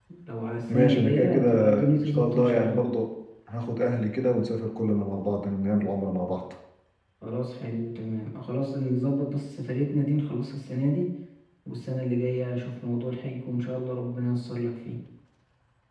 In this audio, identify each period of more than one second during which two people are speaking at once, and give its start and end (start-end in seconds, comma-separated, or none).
0.7-2.8